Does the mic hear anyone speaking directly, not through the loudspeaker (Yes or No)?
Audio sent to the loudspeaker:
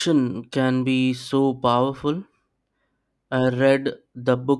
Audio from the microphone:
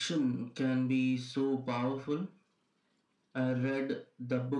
No